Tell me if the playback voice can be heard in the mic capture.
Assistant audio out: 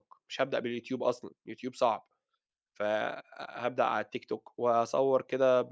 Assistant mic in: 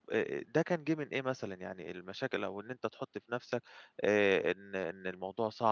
No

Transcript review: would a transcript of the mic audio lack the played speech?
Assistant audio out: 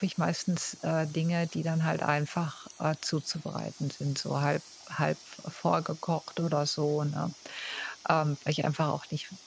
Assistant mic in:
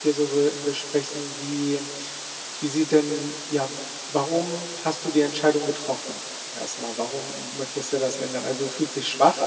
Yes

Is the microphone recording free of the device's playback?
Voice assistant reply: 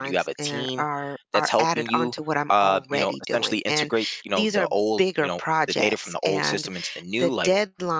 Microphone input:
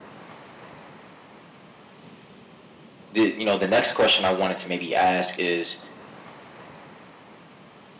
Yes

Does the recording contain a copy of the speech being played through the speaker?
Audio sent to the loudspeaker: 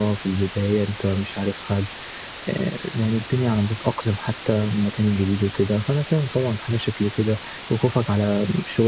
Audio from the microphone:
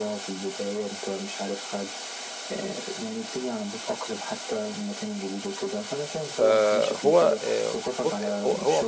Yes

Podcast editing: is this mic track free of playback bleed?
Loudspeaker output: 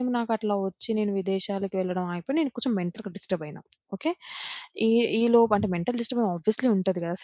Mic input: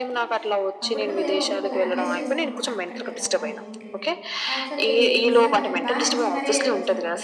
No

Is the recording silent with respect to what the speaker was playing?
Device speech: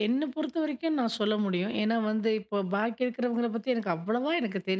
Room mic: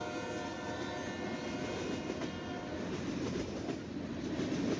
Yes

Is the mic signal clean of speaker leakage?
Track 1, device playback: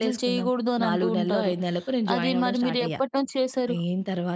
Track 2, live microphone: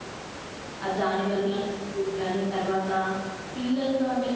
Yes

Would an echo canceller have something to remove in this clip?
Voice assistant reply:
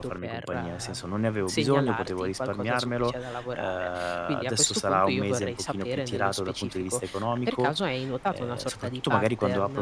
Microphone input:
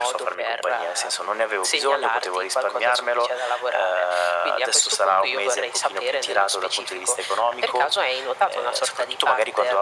Yes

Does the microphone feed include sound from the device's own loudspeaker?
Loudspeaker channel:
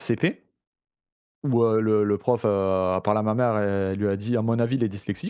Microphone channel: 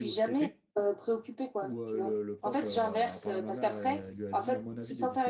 Yes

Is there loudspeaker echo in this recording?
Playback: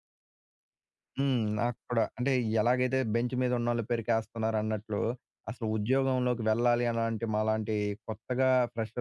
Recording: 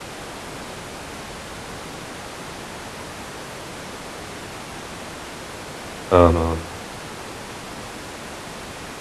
No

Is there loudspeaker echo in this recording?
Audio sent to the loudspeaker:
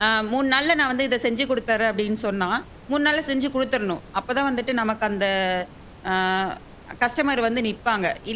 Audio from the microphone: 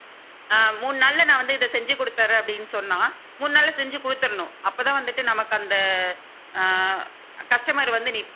Yes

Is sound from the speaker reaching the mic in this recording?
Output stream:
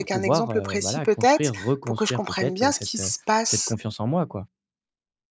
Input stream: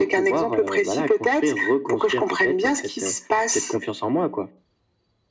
Yes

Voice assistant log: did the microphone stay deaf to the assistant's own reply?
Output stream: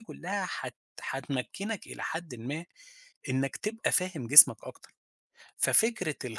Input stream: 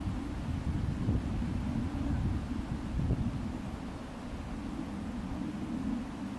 Yes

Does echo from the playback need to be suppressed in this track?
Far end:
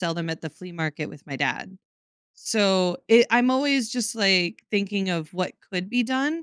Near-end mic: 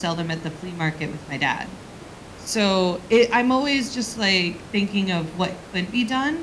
Yes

